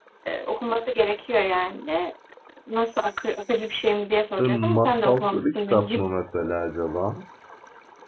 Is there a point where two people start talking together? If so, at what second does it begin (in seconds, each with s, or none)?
4.4 s